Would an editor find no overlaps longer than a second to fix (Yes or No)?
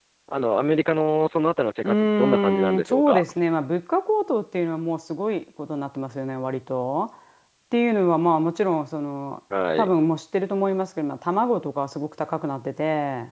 No